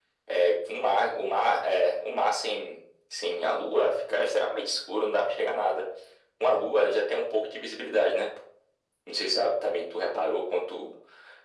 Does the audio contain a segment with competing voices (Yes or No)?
No